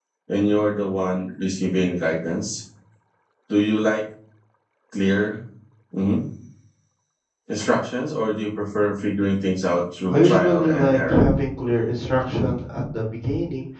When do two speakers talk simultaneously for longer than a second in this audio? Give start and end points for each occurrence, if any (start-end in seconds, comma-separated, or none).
10.1-11.3